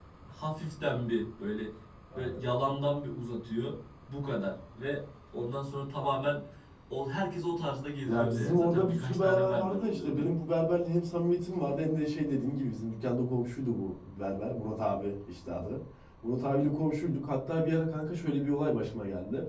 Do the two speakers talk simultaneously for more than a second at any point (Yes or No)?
Yes